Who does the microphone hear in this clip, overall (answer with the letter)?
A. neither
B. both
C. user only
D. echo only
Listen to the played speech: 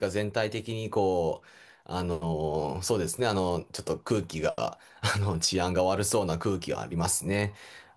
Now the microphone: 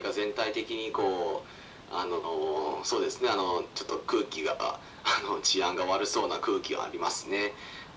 D